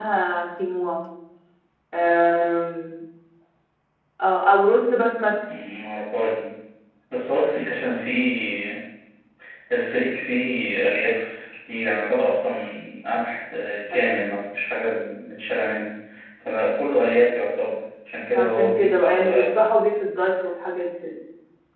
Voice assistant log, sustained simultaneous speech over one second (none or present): present